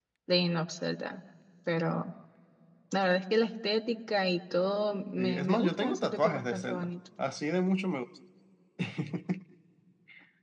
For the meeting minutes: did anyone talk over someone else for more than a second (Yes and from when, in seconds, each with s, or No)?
Yes, from 5.2 s